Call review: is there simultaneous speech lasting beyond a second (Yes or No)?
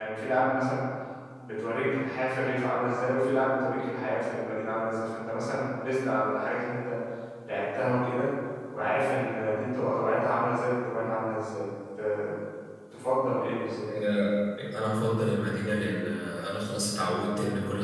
No